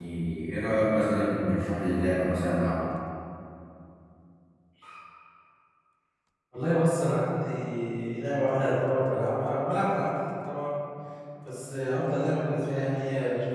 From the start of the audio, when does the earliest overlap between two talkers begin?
none

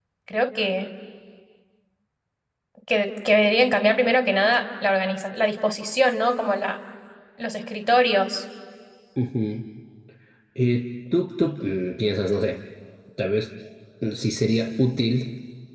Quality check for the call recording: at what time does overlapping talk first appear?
none

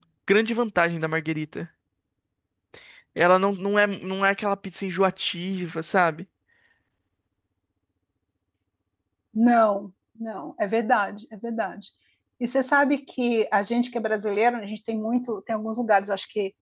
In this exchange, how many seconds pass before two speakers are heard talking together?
none

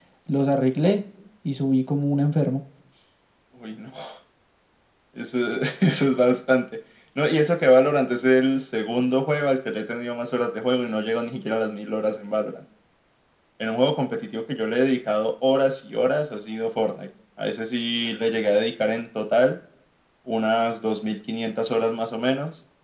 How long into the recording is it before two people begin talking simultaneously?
none

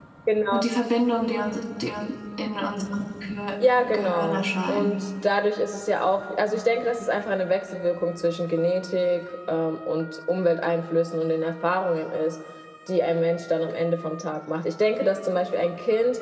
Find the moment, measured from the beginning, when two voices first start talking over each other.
3.6 s

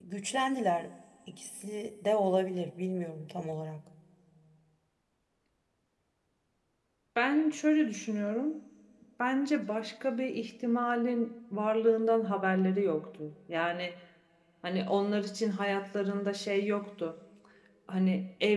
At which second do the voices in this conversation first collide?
none

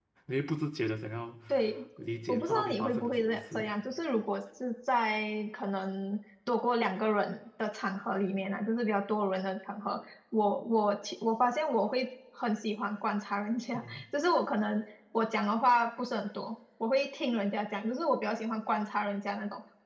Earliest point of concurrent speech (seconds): 2.3 s

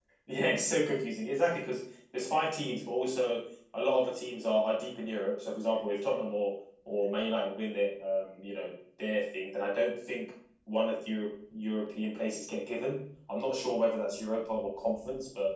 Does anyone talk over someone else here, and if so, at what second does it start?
none

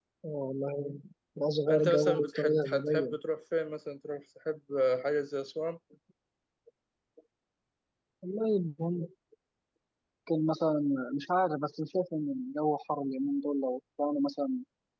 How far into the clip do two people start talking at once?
1.7 s

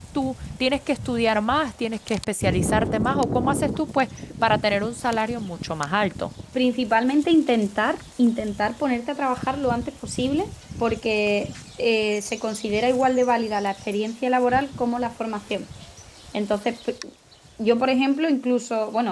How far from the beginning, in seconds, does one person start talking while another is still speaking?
none

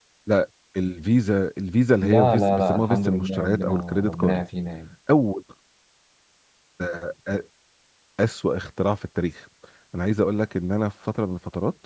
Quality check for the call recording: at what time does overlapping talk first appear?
2.0 s

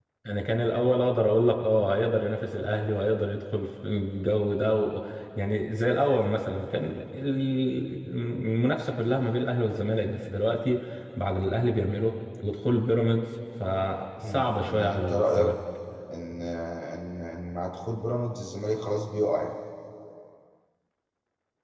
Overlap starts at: 14.2 s

